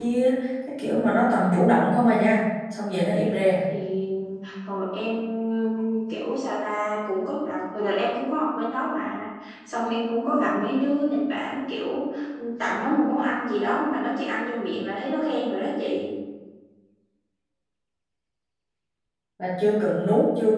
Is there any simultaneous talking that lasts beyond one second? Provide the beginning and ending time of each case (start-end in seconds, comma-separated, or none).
none